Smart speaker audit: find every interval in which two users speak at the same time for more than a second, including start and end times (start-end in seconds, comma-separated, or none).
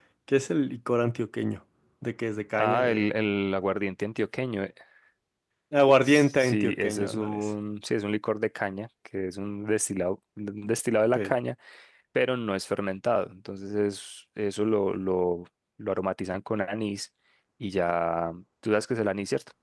6.0-7.5